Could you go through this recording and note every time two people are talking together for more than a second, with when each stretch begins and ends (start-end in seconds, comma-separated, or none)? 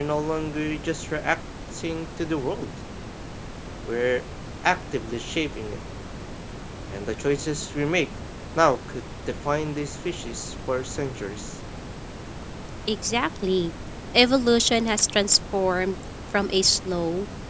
none